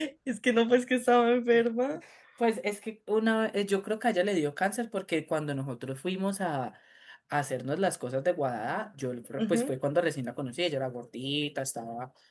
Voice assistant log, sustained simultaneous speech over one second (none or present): none